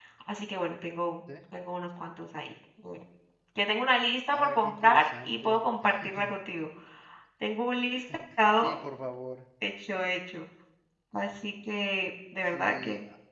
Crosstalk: present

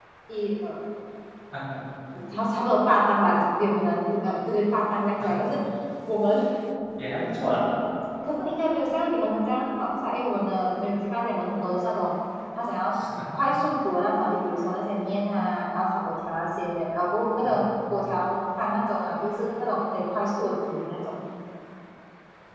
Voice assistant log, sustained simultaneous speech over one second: none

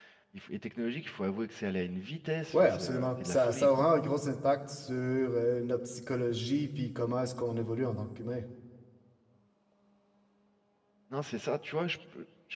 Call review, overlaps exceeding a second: present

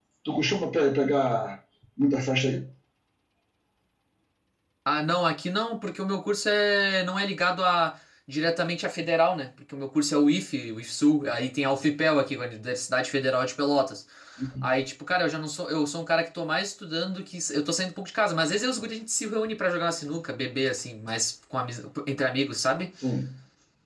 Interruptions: none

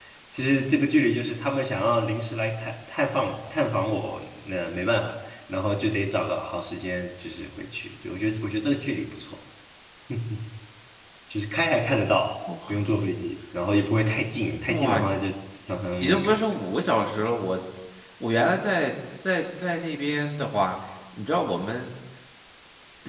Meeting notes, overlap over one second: none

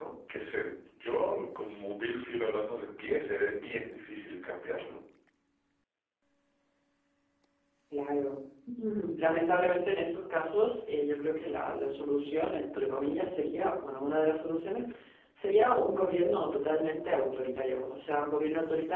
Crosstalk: none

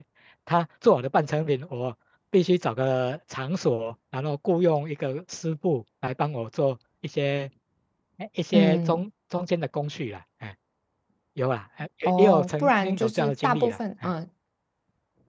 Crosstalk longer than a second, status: present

